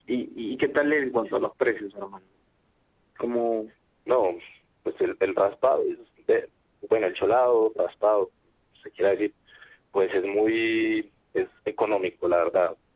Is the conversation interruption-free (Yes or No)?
Yes